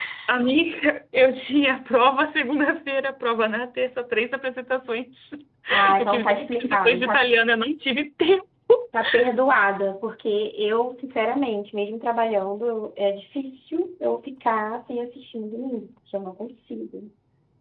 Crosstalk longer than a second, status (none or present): present